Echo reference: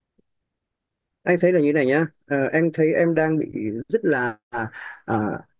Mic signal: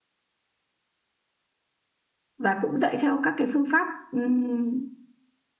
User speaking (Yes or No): Yes